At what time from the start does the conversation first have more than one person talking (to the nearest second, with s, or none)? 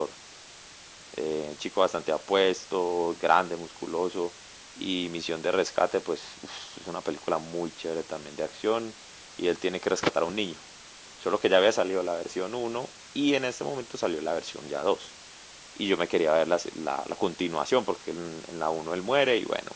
none